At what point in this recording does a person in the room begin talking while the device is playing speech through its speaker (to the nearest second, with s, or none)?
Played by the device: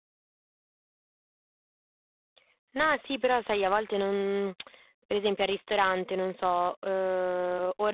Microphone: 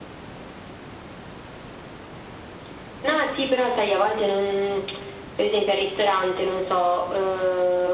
none